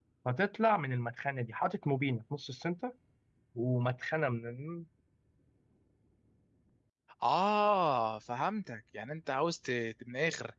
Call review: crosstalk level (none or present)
none